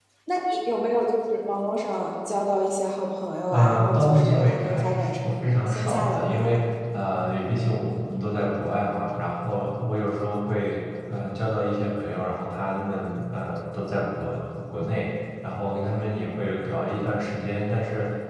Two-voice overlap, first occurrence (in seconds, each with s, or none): 3.5 s